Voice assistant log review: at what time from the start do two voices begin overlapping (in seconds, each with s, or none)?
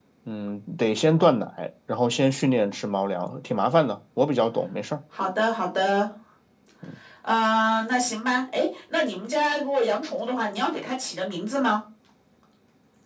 none